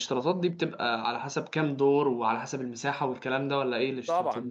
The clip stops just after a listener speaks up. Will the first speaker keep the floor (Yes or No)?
No